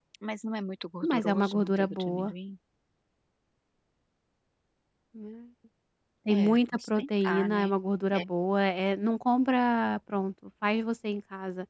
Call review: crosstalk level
present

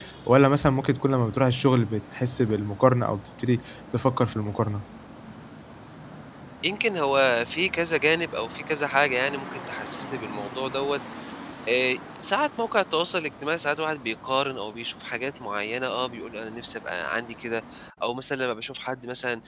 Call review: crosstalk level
none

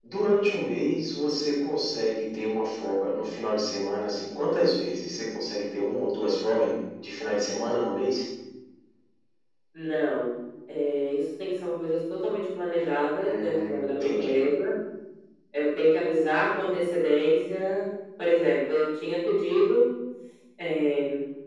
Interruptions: present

